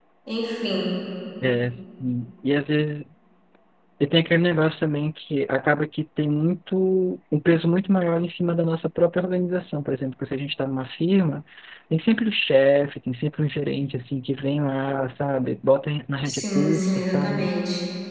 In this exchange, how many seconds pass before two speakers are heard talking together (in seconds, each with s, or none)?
16.2 s